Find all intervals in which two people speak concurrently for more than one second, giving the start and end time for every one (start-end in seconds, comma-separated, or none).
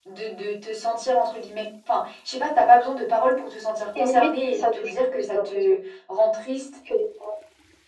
4.0-5.8